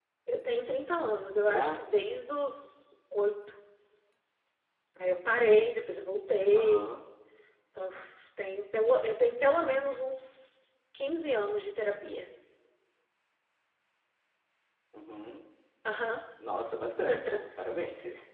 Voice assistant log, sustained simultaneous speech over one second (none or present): none